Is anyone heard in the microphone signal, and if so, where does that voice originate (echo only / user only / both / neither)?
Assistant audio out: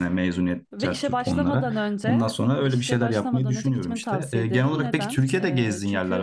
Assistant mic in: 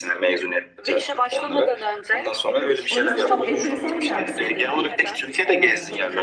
both